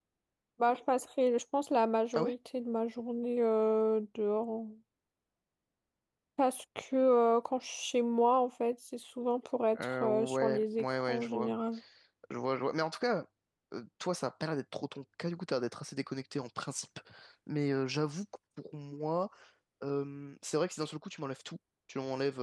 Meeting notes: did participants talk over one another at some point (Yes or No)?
Yes